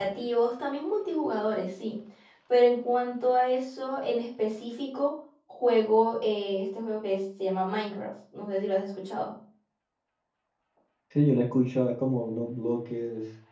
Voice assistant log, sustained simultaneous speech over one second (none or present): none